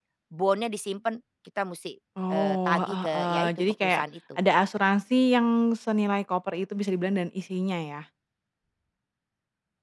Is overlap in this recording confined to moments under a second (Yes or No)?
No